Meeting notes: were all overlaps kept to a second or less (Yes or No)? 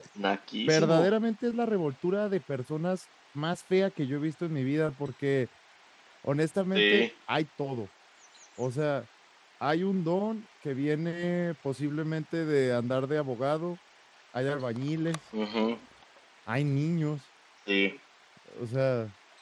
Yes